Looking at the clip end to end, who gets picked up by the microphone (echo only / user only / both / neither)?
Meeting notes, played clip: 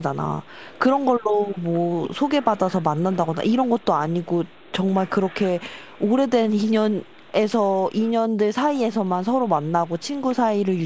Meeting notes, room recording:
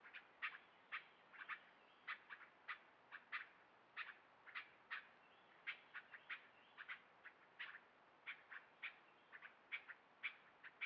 neither